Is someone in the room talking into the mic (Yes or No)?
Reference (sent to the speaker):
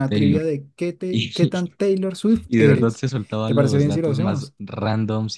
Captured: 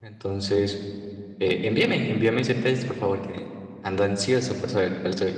Yes